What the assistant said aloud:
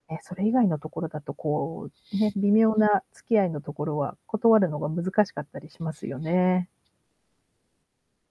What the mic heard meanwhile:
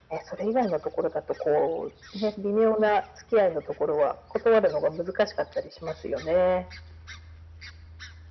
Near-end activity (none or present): none